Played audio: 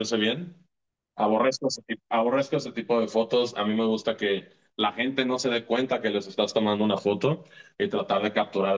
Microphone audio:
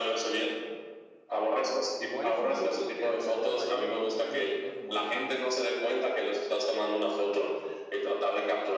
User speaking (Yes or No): Yes